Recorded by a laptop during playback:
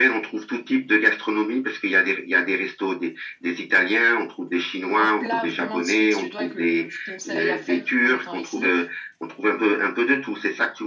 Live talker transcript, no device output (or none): un plat vraiment typique suédois que je conseille à faire en étant ici,